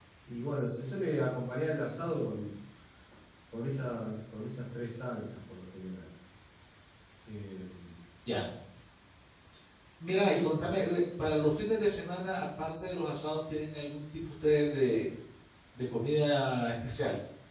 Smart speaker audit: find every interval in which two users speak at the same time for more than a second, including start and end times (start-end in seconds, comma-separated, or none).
none